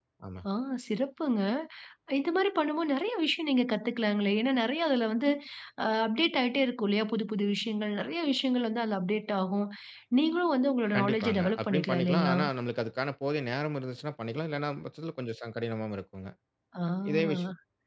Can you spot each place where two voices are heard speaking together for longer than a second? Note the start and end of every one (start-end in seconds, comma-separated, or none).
11.0-12.4